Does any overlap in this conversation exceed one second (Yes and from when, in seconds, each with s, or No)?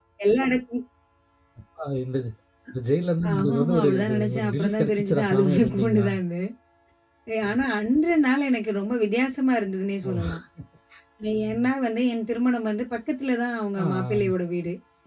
Yes, from 3.3 s